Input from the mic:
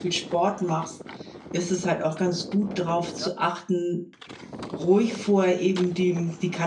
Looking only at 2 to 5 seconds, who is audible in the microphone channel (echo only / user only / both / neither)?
user only